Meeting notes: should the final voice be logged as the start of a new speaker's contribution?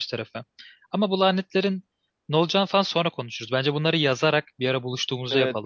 Yes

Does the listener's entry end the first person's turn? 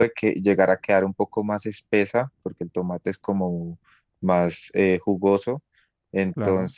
No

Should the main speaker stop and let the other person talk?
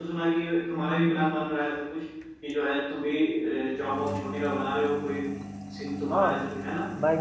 Yes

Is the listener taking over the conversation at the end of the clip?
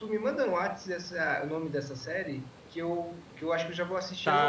Yes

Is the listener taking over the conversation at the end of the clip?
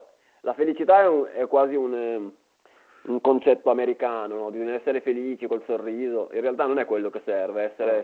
No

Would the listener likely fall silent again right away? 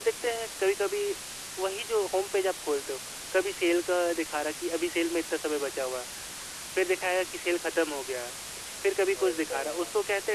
Yes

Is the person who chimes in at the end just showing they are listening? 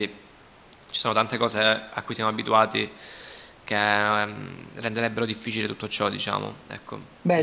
No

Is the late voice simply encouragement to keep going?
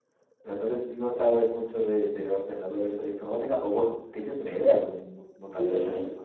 No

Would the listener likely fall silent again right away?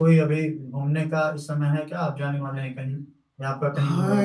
No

